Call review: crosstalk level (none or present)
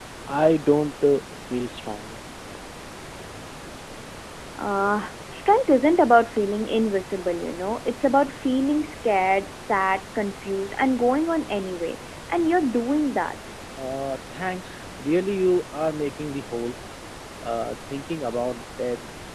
none